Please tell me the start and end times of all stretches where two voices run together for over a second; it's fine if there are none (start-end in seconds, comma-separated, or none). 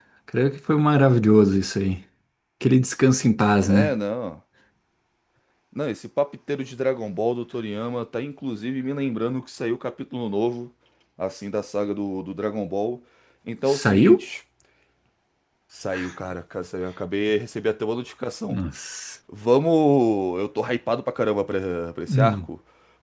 none